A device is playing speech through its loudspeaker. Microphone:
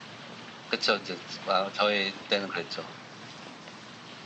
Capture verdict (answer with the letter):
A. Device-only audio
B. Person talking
A